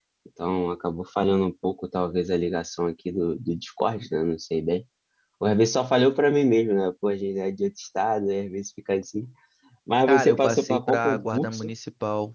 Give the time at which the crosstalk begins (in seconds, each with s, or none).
10.1 s